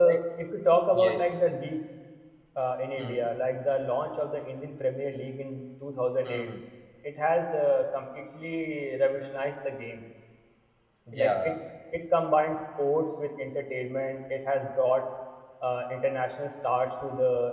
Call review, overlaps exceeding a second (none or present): none